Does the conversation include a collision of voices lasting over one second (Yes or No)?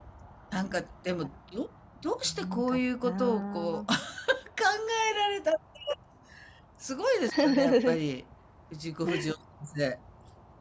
Yes